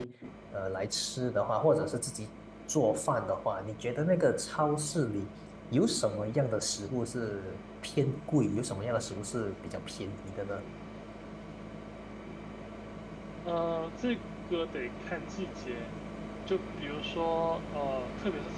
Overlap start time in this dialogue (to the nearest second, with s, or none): none